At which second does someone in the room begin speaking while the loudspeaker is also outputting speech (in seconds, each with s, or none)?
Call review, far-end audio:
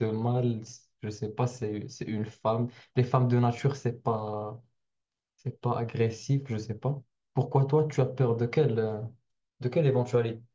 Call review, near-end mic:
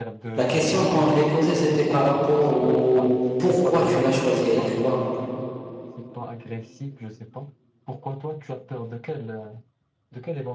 0.3 s